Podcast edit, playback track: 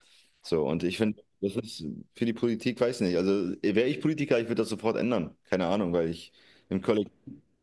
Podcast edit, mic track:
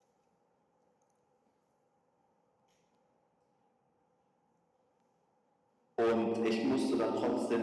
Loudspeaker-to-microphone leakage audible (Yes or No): No